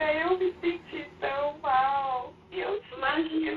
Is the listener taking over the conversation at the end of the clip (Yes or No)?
No